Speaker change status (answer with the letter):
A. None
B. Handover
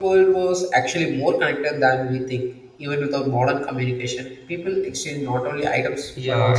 B